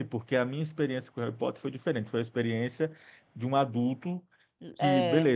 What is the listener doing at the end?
listening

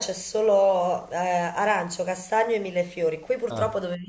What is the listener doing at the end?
listening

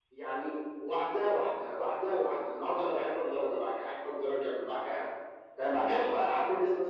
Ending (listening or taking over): listening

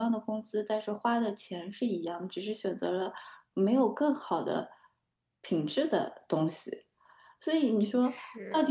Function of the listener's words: listening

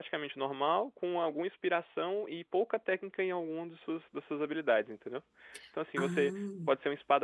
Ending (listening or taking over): listening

